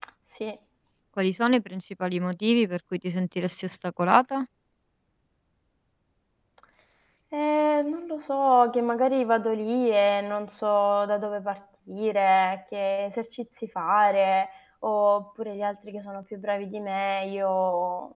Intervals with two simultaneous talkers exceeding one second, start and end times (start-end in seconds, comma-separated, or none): none